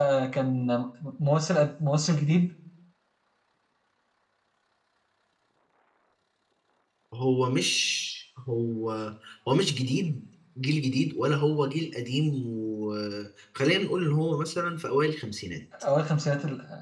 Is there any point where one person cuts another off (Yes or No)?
No